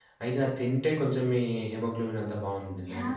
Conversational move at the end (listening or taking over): taking over